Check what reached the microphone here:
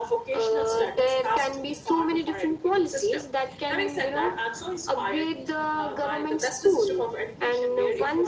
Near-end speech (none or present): none